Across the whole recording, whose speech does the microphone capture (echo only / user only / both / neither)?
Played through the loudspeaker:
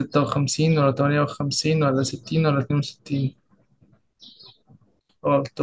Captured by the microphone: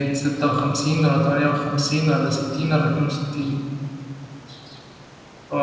echo only